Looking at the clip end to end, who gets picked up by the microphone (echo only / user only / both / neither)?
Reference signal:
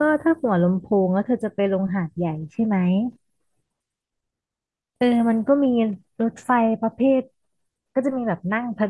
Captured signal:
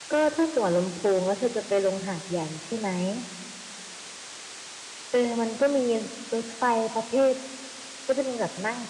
echo only